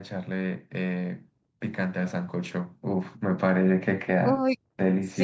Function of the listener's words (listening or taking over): taking over